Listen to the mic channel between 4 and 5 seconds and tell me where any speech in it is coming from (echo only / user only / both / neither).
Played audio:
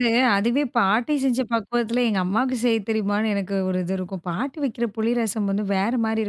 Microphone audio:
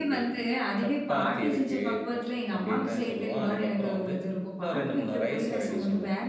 both